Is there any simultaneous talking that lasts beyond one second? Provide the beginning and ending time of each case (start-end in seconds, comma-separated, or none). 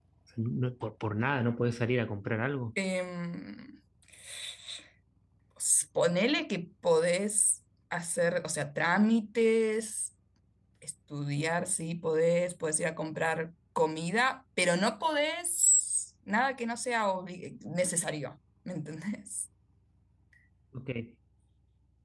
none